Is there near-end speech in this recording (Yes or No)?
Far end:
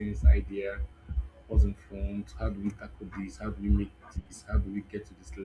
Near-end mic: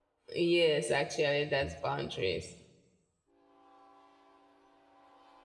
Yes